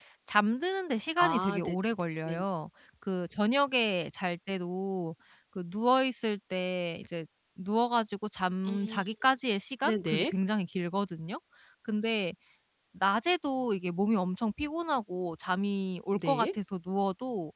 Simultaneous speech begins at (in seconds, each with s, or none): 1.2 s